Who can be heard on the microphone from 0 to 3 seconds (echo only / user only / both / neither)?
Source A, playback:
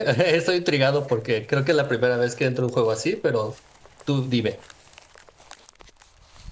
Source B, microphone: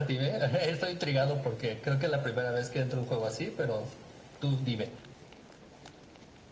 echo only